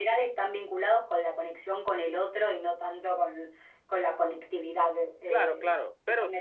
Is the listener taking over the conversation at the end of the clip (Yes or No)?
Yes